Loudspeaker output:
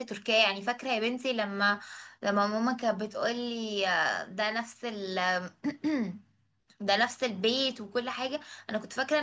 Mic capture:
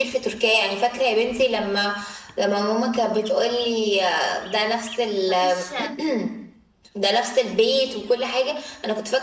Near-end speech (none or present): present